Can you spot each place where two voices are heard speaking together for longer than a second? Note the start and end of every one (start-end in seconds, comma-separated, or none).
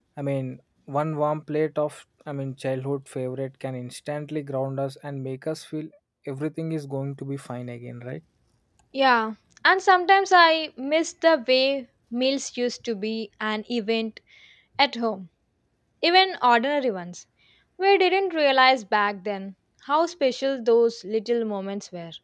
none